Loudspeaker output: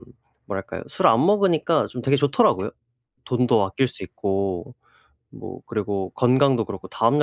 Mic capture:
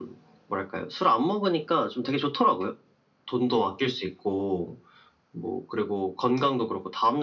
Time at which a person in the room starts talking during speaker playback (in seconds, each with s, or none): none